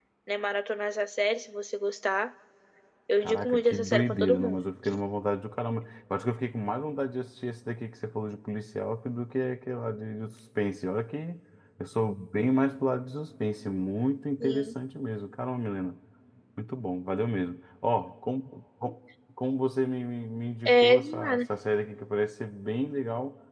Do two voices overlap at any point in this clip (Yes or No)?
Yes